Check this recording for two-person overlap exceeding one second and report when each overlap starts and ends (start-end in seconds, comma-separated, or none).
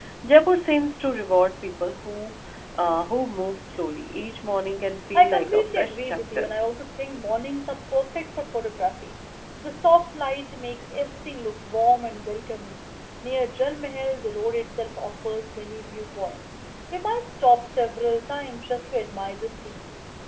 5.2-6.5